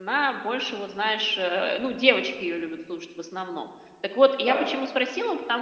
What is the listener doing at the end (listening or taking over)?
listening